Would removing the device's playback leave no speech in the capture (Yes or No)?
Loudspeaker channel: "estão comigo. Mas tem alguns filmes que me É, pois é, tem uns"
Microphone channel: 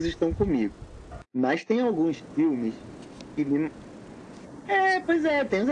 Yes